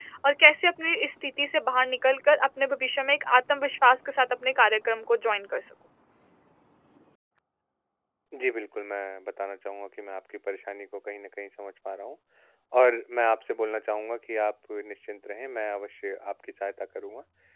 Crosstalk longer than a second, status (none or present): none